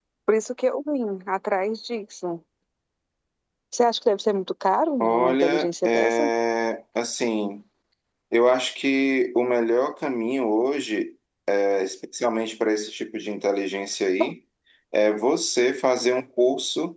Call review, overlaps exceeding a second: present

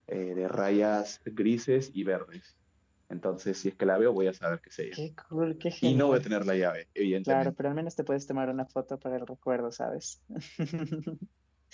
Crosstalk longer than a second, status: none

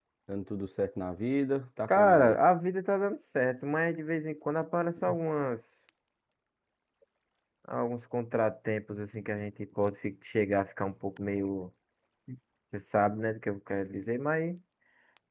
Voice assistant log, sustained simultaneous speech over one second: none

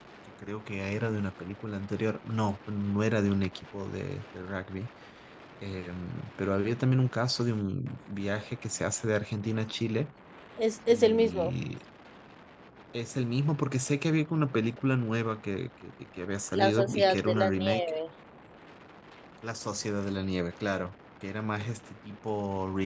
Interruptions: present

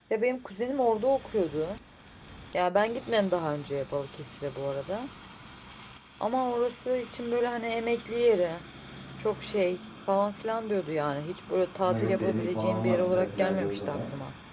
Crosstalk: present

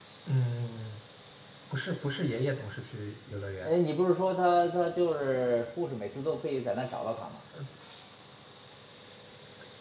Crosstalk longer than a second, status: none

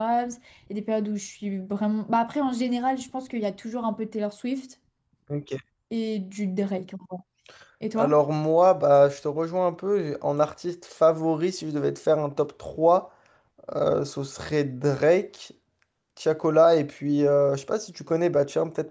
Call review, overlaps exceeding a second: none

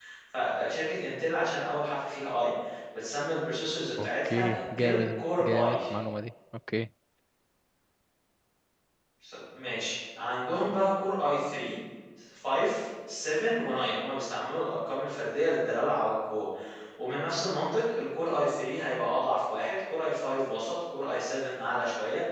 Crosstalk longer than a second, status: present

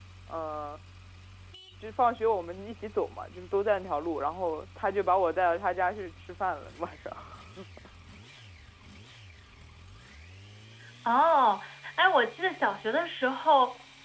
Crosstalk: none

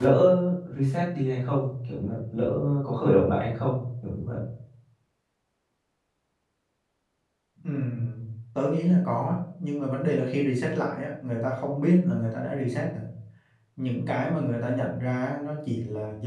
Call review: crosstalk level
none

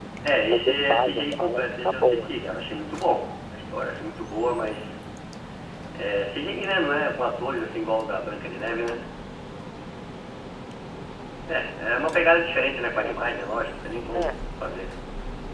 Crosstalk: present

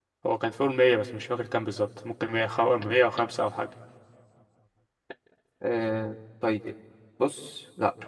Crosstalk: none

